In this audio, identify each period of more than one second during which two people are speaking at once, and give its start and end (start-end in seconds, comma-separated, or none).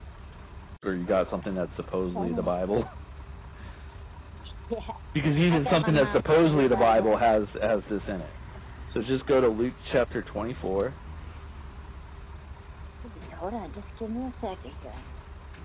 5.5-7.1